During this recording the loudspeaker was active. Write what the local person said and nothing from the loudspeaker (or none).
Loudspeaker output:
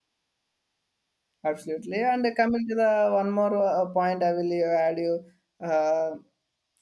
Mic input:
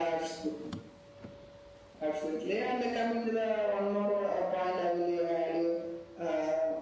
none